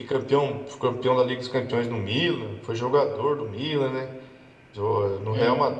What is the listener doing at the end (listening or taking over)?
listening